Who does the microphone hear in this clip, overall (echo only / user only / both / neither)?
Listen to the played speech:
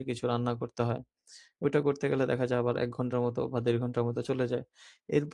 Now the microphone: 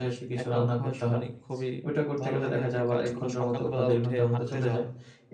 both